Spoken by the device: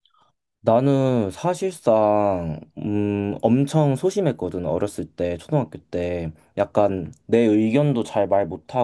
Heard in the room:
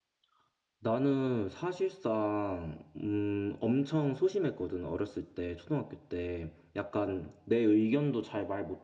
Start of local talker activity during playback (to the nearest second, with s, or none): none